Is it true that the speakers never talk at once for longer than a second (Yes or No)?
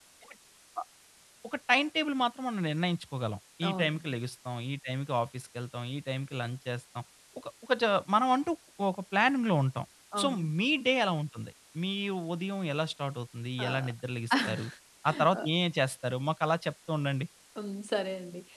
Yes